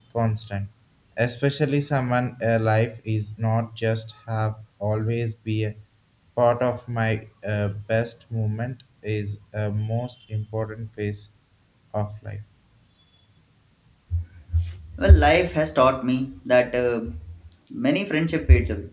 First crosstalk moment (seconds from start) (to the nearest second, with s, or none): none